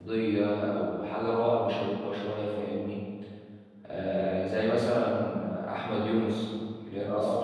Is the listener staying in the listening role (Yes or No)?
Yes